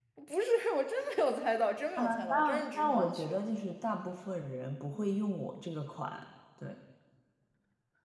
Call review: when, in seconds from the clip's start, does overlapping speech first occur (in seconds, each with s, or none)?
2.0 s